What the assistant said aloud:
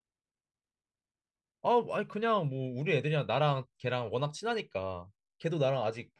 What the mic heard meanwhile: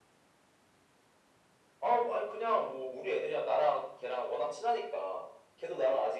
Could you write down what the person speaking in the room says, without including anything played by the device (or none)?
none